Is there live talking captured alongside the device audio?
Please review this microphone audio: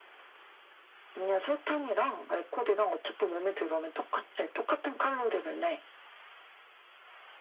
No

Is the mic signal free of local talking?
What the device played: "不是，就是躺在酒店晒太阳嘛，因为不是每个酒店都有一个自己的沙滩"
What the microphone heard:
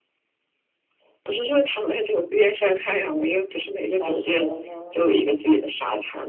No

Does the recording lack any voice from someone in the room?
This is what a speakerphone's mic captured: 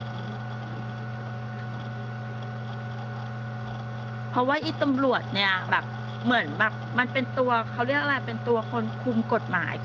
No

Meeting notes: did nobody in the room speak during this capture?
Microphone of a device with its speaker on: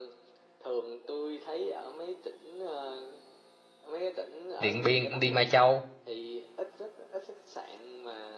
No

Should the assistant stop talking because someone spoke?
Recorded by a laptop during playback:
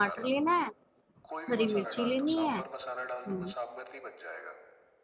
Yes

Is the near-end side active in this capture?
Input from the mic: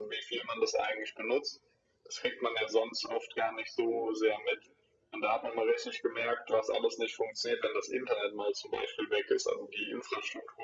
No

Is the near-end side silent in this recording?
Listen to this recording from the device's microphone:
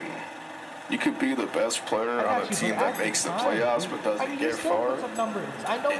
No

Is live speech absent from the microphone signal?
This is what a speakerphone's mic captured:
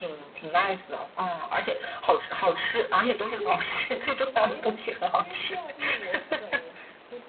No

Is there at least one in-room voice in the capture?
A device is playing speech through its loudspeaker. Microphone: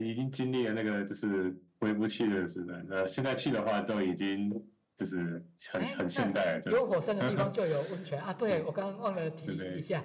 Yes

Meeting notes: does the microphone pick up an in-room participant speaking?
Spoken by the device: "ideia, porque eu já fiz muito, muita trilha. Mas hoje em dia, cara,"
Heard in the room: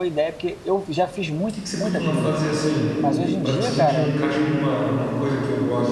Yes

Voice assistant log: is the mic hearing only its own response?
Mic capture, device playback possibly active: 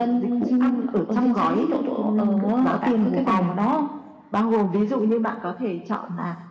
Yes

